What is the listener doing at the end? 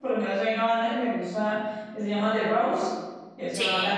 listening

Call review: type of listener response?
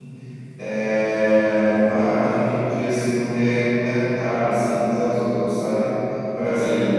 listening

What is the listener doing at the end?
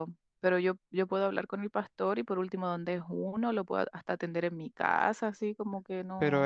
taking over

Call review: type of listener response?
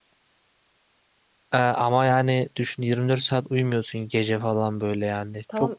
taking over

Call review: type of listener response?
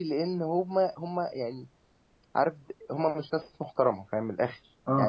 listening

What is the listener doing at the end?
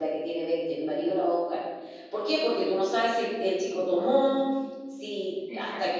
listening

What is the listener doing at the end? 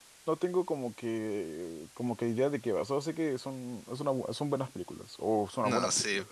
taking over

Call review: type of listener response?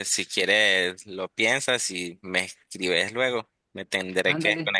taking over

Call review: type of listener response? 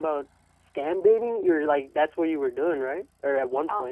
taking over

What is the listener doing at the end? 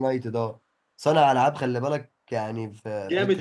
taking over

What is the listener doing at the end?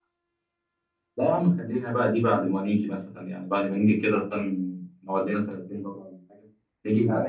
taking over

